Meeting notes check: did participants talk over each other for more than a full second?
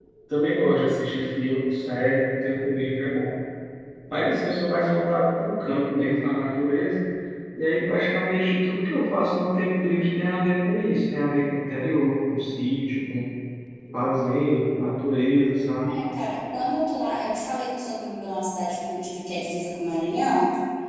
No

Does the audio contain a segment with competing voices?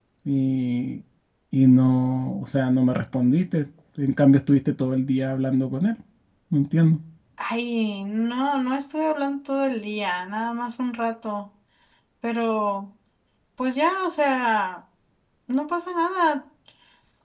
No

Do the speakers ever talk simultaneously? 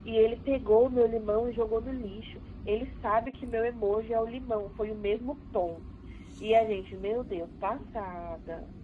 No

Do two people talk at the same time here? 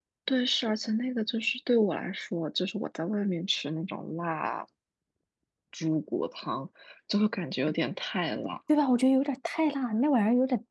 No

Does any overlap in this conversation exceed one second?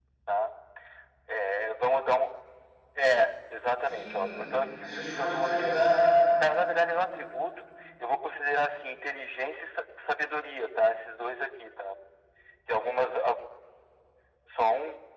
Yes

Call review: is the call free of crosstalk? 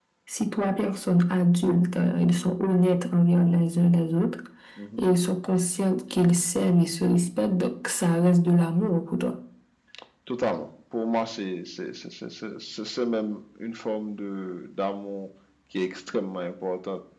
Yes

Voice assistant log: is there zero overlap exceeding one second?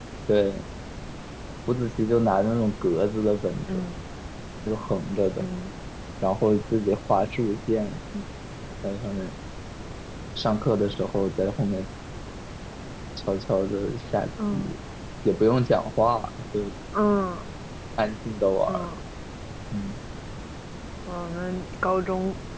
Yes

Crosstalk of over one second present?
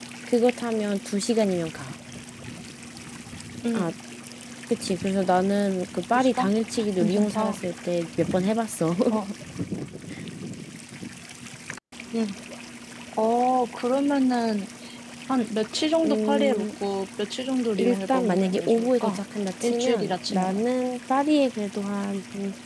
Yes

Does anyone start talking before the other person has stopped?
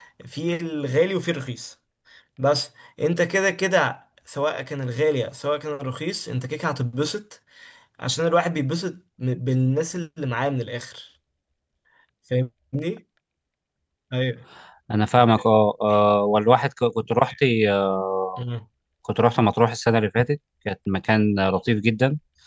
No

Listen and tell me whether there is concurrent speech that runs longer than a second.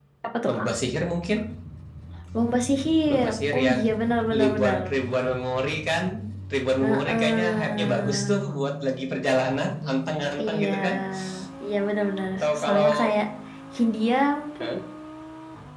Yes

